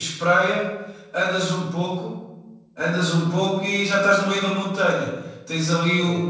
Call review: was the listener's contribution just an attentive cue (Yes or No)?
Yes